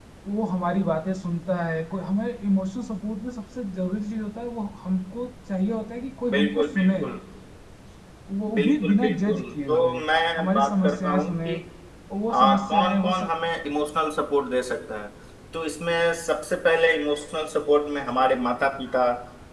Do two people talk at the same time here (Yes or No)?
Yes